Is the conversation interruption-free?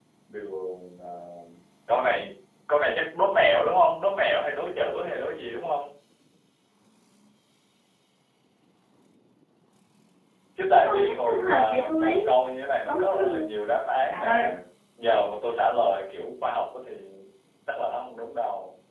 No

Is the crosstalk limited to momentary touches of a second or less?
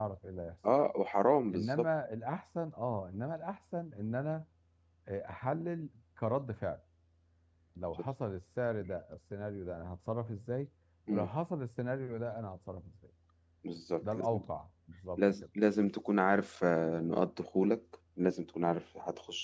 Yes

